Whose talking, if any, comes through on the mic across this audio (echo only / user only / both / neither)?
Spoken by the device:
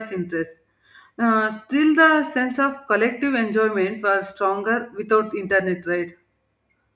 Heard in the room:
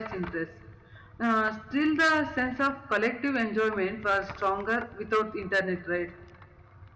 echo only